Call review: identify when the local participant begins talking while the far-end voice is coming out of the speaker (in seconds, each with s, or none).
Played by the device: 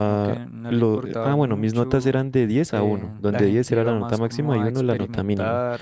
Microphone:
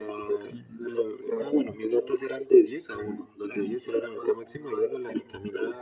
none